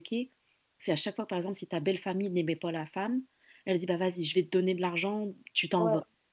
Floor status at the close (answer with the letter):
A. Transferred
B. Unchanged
B